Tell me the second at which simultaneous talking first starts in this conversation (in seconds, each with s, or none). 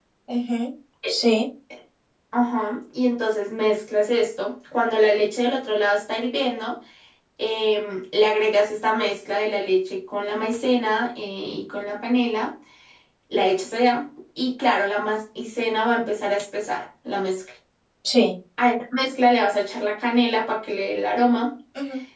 none